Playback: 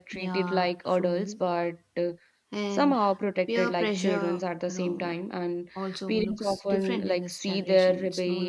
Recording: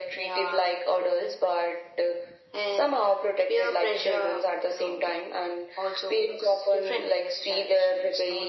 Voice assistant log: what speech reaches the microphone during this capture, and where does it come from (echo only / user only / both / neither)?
echo only